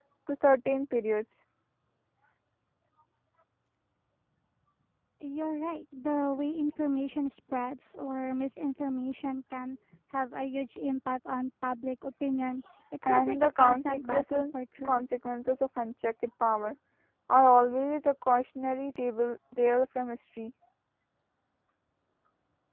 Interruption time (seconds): 13.0 s

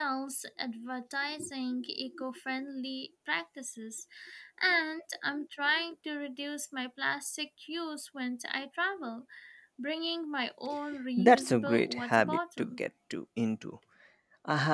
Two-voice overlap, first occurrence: 11.2 s

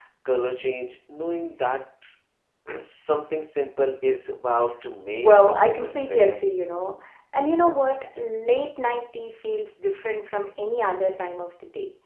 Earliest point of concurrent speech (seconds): 5.1 s

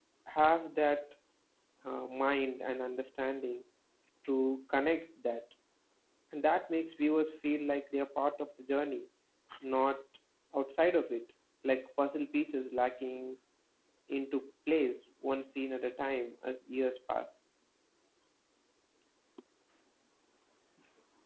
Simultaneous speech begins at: none

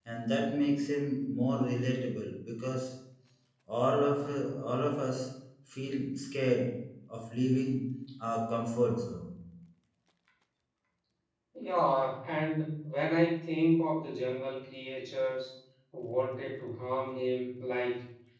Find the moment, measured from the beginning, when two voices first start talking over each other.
none

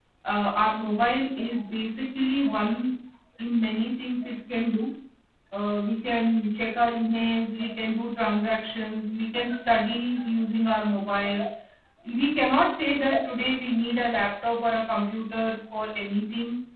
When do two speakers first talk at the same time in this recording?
none

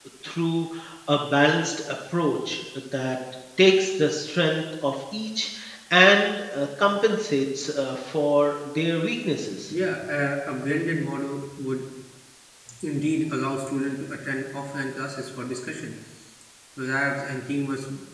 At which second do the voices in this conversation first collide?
none

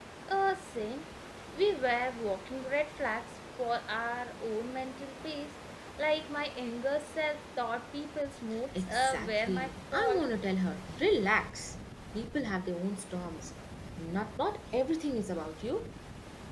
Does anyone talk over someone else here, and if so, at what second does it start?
8.7 s

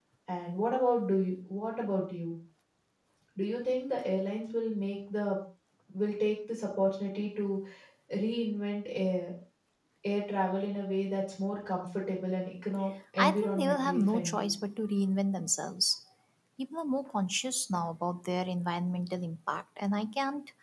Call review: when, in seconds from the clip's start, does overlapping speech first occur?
13.2 s

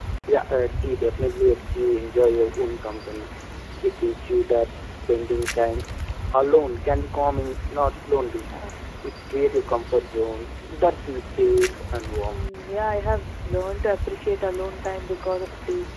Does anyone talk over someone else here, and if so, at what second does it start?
none

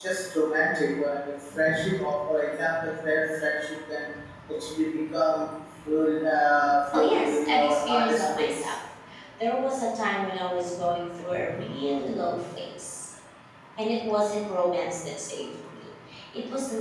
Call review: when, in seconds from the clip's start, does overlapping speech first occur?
6.9 s

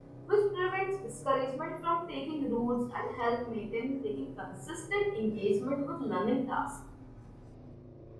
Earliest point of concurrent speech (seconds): none

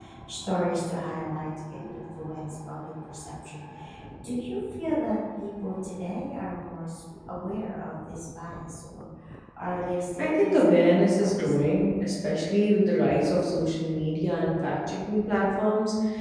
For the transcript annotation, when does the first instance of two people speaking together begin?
10.2 s

